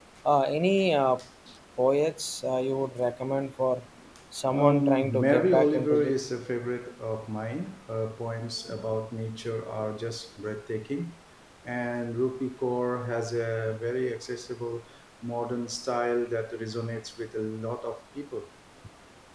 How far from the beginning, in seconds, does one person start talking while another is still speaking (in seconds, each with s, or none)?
4.5 s